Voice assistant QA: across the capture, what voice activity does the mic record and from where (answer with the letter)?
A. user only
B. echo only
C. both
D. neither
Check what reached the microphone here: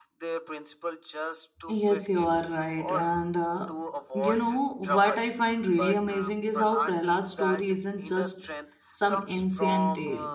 C